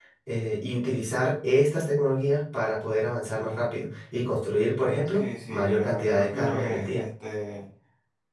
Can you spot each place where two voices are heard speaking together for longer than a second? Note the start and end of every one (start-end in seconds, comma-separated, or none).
5.1-7.0